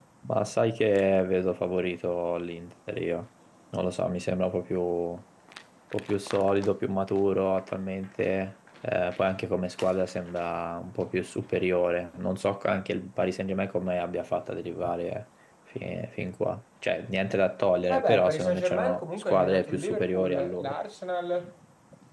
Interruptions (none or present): present